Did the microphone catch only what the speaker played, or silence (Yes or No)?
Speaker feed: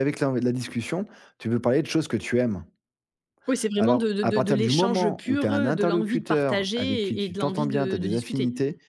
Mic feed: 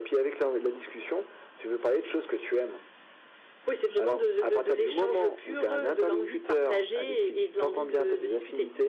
Yes